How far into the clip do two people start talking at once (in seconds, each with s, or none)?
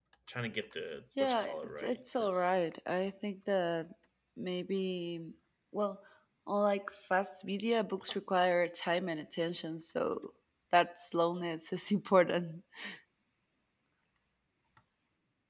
1.2 s